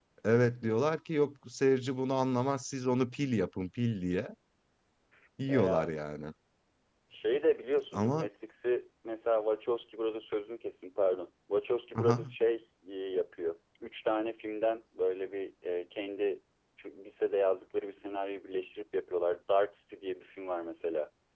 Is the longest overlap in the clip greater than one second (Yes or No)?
No